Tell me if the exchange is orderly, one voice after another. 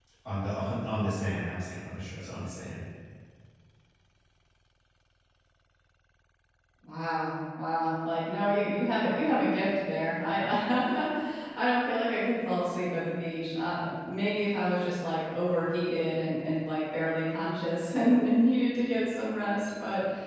Yes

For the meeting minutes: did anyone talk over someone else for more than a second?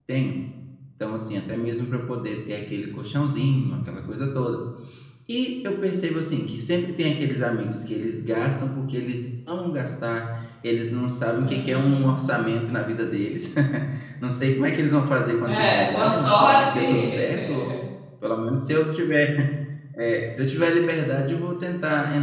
Yes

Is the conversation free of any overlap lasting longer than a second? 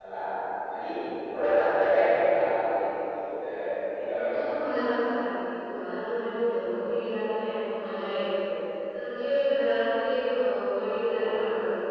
Yes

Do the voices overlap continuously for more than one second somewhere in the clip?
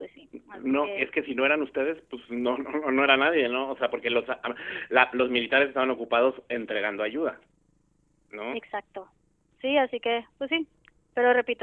No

